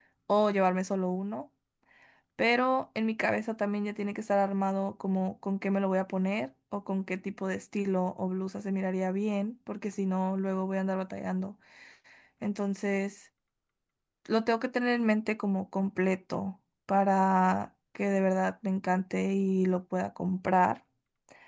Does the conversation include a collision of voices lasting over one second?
No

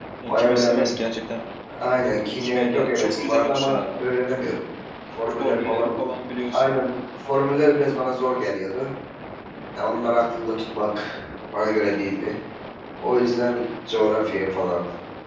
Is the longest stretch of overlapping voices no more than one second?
No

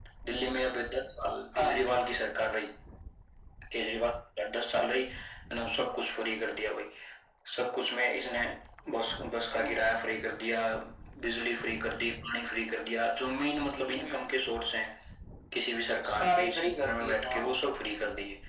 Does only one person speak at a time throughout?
No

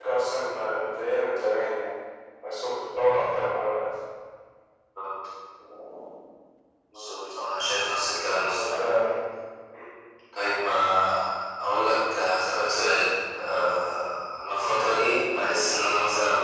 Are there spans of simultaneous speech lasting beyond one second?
No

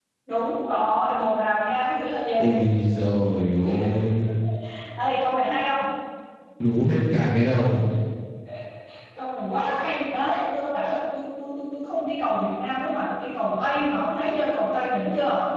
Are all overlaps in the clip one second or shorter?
Yes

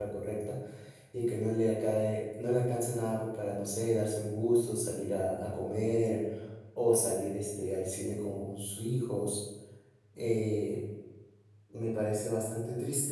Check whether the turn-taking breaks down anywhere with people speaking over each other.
No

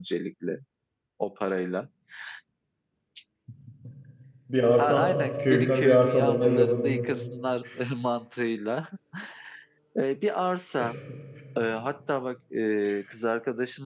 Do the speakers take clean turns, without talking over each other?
No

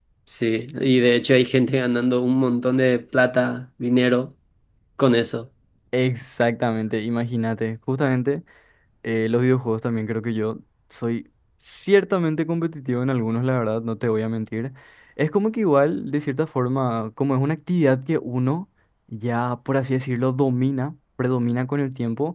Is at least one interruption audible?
No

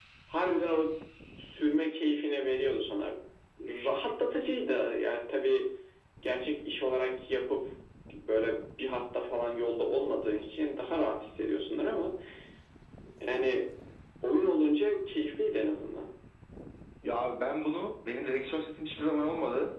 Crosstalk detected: No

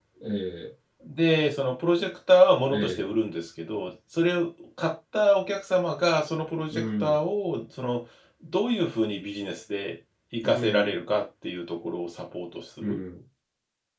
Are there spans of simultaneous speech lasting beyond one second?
No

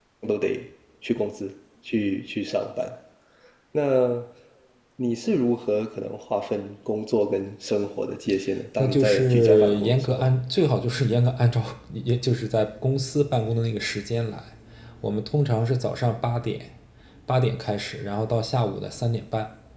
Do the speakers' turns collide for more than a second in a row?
Yes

